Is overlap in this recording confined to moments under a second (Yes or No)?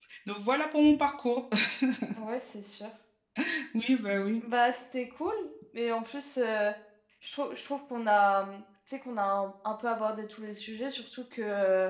Yes